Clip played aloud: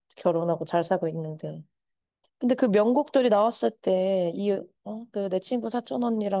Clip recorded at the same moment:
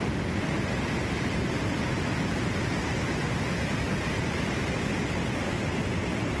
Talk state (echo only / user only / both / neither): neither